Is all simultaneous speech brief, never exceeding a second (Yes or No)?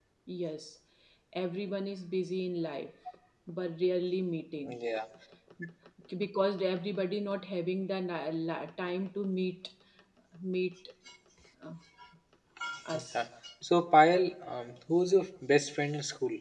Yes